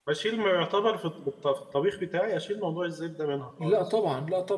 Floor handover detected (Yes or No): Yes